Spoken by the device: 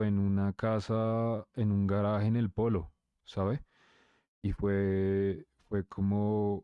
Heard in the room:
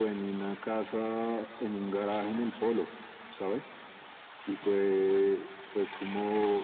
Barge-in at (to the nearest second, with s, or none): none